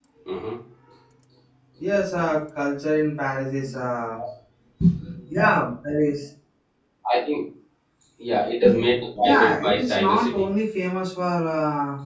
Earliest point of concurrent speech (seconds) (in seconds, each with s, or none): 9.2 s